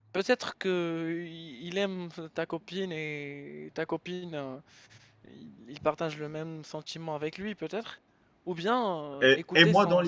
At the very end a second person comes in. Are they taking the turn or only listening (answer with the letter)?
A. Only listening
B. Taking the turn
B